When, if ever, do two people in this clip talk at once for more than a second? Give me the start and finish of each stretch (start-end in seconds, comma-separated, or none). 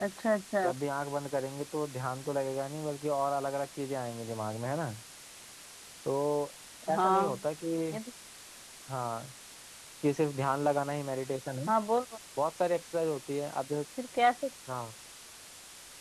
none